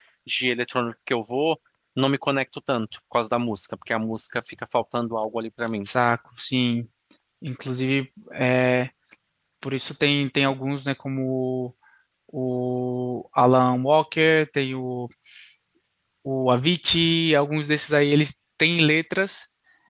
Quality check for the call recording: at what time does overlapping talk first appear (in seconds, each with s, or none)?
none